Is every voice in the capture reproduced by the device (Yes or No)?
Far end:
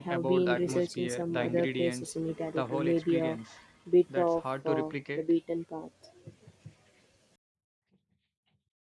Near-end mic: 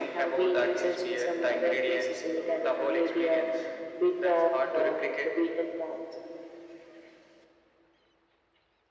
Yes